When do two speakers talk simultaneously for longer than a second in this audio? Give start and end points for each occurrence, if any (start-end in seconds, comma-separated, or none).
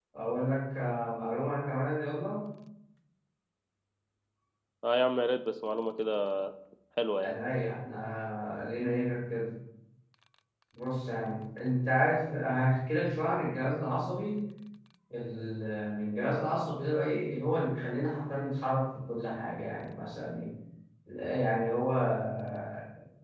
none